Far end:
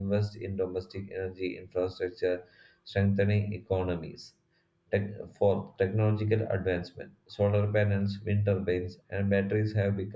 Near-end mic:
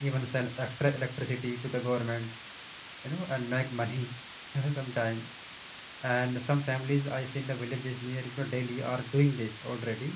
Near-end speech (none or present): present